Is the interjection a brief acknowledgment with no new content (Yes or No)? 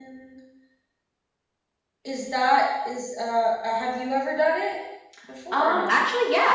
No